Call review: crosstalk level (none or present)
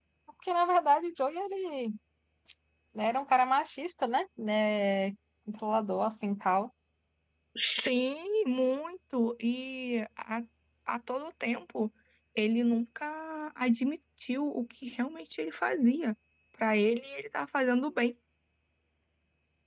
none